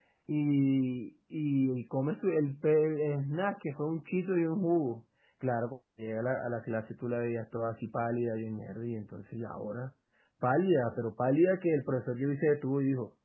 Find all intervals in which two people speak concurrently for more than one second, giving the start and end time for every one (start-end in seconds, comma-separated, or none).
none